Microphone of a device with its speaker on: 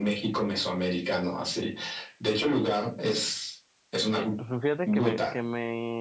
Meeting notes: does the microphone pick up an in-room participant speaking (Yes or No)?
Yes